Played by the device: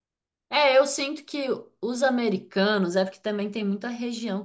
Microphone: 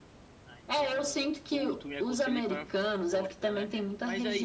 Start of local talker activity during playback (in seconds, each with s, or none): 0.4 s